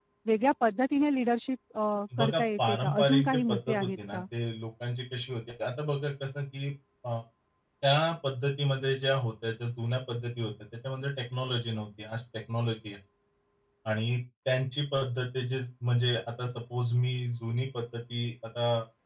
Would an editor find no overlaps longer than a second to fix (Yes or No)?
No